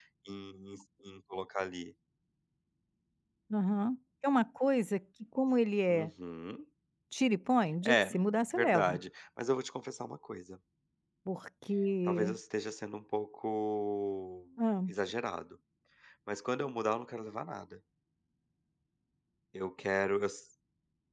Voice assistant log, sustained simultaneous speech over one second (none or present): none